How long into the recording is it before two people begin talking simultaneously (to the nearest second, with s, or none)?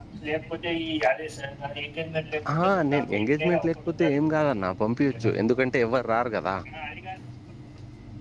2 s